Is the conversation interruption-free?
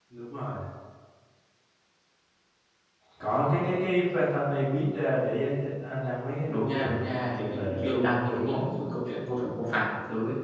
No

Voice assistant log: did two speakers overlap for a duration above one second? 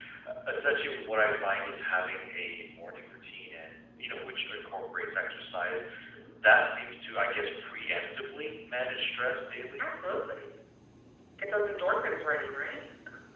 No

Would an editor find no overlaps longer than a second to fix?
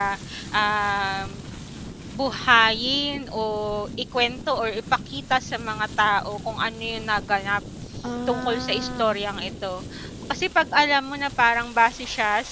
No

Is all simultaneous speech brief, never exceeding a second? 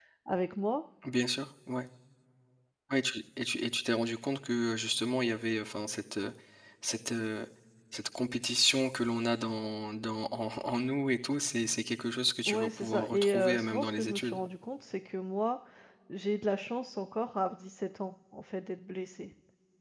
No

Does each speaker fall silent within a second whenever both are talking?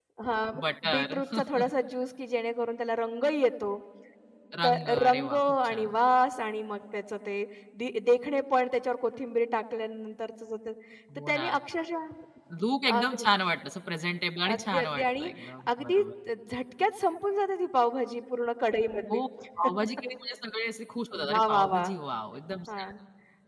No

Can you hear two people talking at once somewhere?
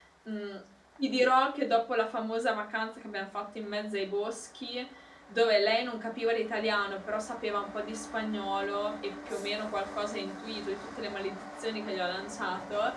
No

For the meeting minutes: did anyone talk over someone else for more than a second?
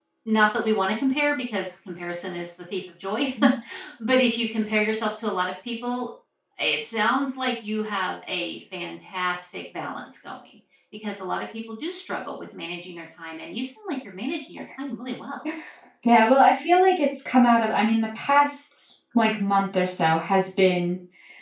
No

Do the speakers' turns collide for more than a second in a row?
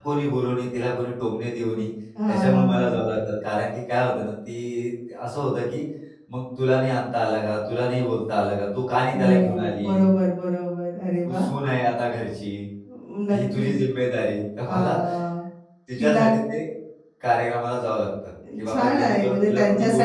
Yes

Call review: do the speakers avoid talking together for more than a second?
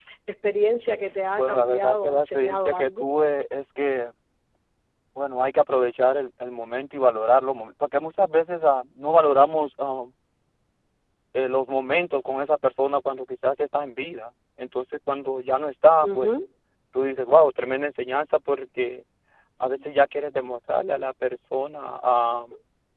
No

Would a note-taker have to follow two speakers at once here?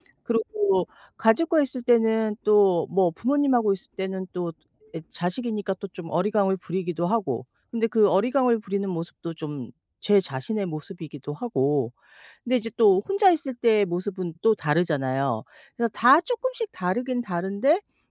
No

